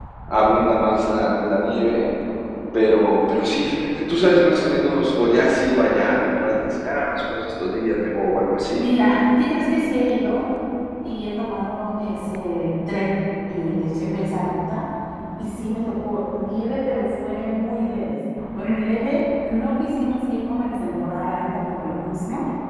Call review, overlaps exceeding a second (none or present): none